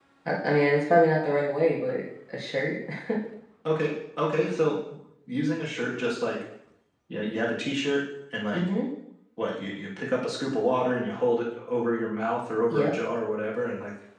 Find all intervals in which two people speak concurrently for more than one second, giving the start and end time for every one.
none

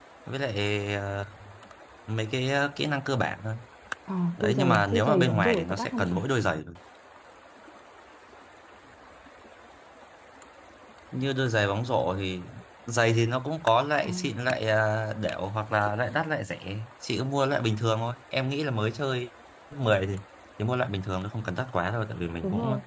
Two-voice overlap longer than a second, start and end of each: 4.4-6.2

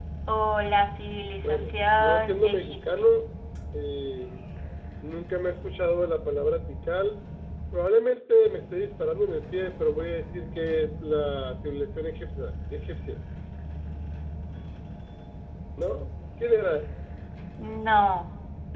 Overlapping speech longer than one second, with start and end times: 1.4-3.1

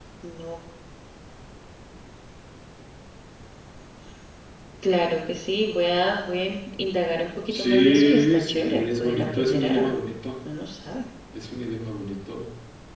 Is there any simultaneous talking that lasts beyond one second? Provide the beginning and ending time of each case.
7.5-10.0

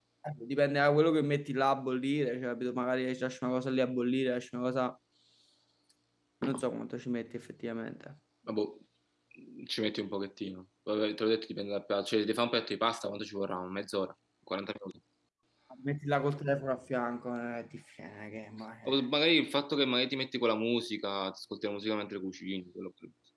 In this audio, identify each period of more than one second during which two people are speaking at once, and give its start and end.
none

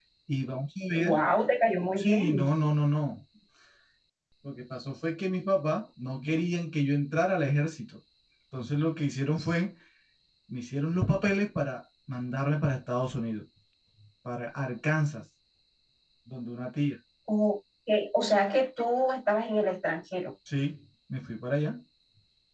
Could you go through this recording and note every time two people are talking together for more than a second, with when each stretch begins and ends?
none

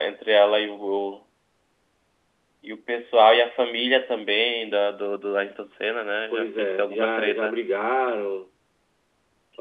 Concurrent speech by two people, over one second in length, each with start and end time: 6.3-7.5

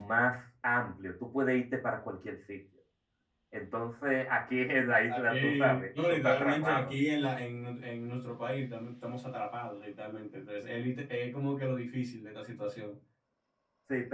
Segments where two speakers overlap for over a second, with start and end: 5.1-6.9

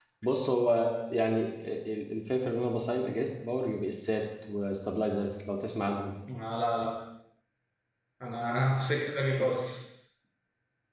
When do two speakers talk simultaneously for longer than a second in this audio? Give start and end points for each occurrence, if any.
none

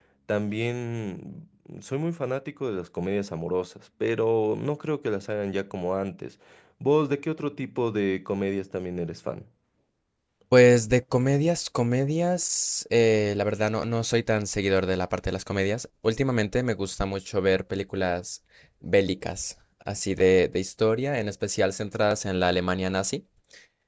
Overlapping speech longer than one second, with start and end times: none

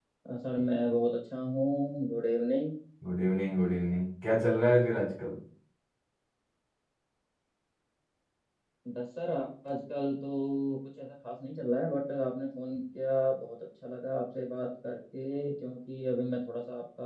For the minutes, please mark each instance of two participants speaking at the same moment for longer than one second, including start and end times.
none

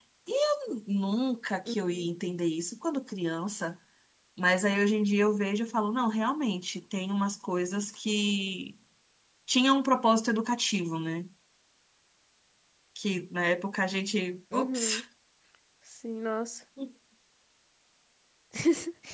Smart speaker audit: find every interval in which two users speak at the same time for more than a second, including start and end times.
none

